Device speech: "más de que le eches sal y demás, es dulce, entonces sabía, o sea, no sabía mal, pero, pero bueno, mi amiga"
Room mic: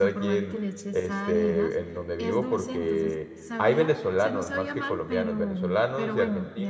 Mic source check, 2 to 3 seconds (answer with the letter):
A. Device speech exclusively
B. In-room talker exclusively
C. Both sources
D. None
C